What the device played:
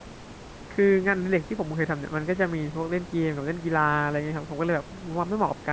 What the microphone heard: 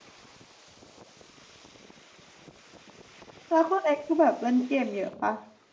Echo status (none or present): none